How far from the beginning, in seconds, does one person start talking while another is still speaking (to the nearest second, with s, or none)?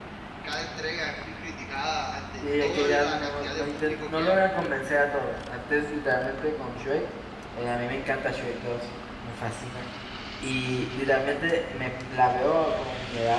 2 s